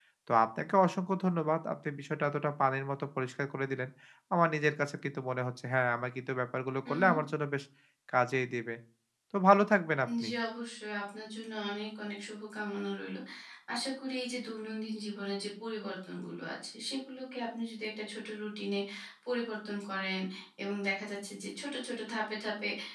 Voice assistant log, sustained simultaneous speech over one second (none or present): none